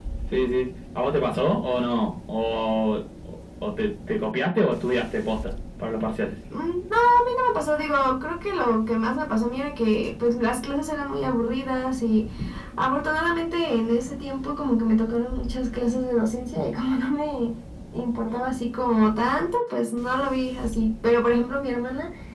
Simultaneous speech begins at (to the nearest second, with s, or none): none